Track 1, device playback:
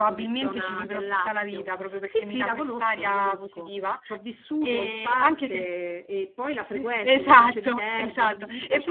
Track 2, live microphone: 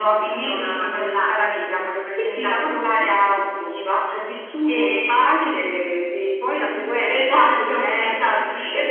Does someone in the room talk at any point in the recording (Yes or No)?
No